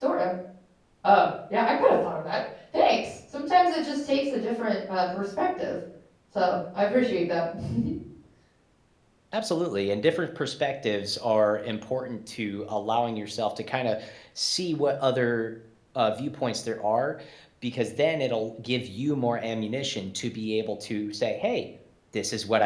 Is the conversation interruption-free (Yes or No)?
Yes